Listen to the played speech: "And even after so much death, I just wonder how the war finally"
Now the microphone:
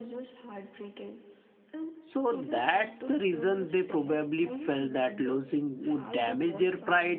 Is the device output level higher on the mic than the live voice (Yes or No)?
No